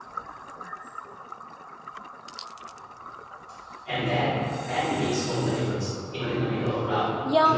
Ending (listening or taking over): taking over